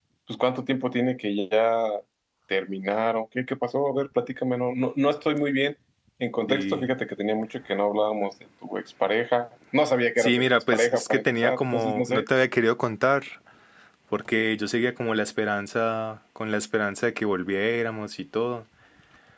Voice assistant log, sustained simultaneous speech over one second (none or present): present